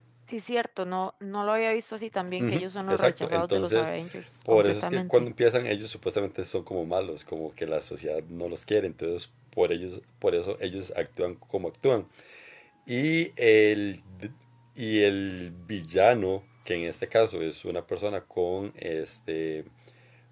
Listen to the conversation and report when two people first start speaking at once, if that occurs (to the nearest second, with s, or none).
2 s